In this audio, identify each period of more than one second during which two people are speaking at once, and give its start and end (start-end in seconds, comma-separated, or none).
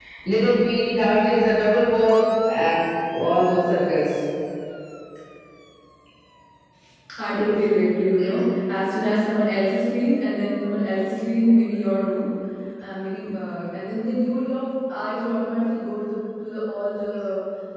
none